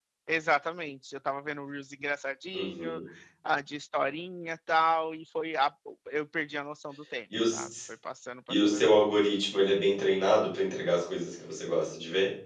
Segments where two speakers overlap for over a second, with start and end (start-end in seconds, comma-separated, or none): none